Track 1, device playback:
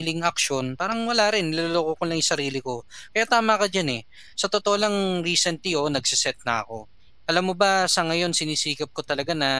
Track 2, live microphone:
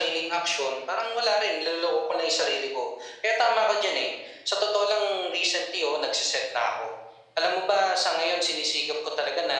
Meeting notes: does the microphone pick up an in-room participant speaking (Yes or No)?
No